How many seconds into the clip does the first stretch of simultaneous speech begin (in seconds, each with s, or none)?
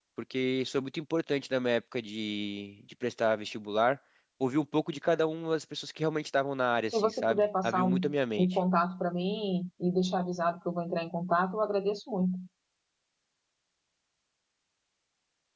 6.9 s